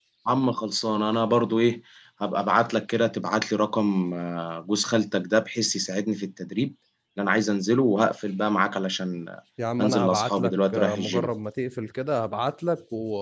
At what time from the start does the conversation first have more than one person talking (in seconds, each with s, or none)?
9.8 s